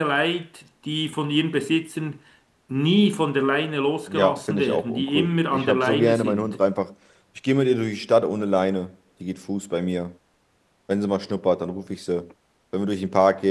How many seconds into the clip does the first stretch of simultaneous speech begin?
4 s

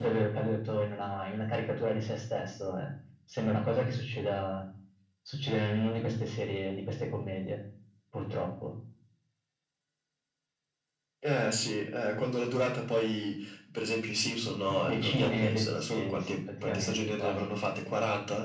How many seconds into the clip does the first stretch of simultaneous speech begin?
15 s

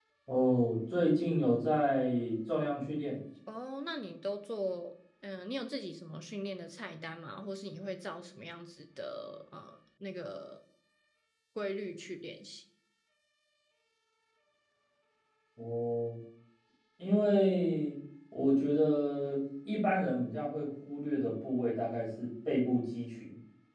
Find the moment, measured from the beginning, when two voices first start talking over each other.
none

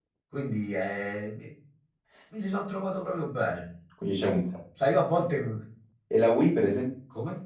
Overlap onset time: none

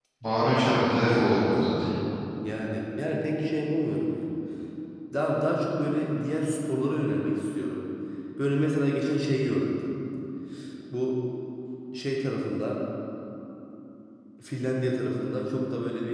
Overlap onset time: none

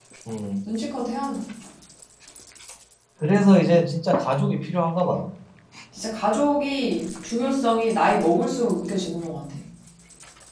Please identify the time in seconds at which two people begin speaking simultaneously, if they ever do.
none

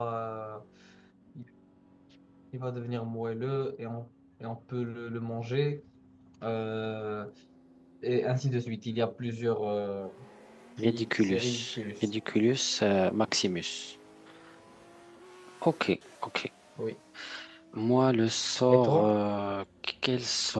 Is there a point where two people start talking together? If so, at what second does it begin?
11 s

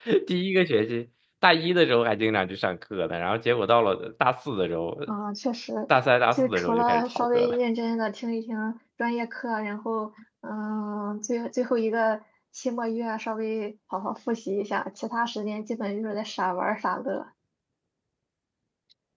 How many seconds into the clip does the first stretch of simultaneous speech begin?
6 s

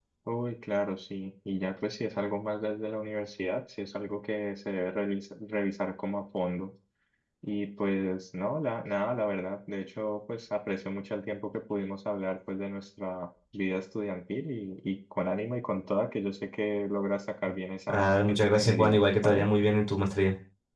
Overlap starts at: 18 s

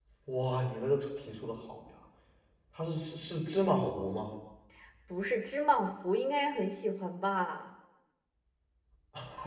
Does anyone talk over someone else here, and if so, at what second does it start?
none

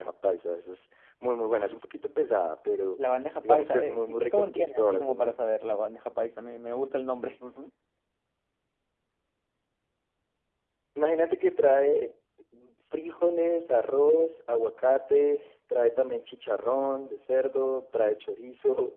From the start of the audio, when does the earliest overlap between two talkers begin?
3 s

